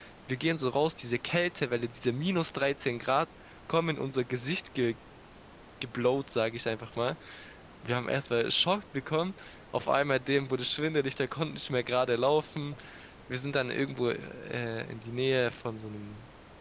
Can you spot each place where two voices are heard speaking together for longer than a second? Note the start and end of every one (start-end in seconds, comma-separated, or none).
none